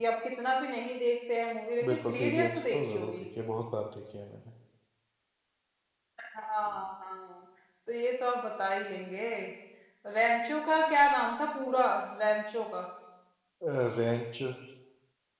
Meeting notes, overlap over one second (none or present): present